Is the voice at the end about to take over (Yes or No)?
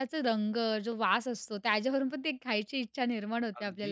Yes